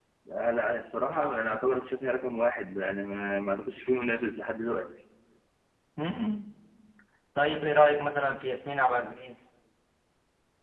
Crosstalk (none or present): none